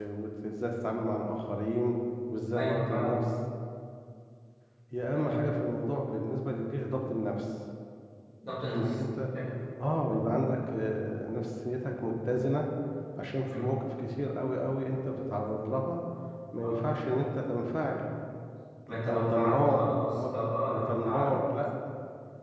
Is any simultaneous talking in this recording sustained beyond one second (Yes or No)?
Yes